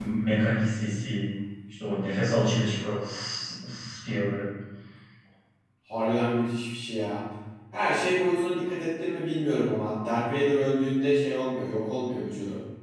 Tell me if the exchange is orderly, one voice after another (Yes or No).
Yes